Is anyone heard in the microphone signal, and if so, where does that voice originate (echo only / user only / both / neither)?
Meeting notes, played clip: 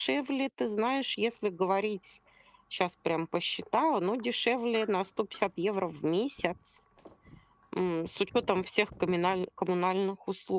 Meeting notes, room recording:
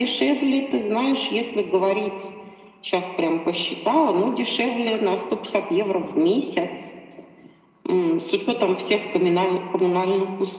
echo only